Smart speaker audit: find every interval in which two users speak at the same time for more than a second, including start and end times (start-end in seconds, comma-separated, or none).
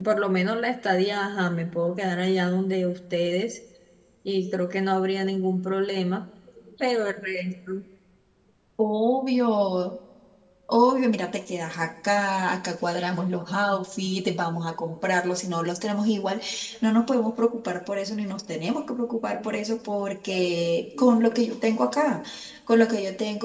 none